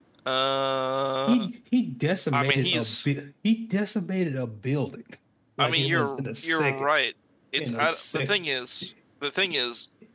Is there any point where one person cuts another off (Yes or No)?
Yes